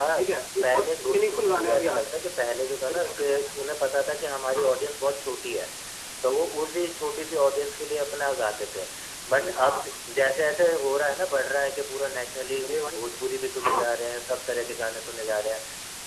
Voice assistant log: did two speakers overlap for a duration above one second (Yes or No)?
Yes